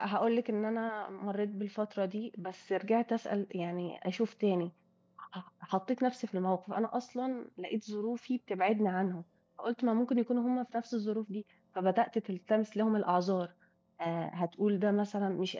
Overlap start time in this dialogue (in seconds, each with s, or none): none